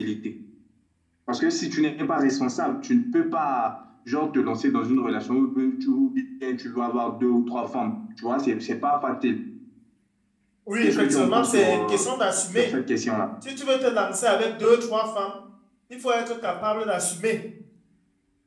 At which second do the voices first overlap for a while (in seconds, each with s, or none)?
10.8 s